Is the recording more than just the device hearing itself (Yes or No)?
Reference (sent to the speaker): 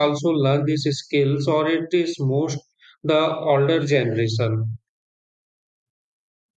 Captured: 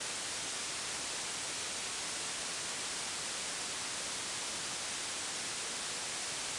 No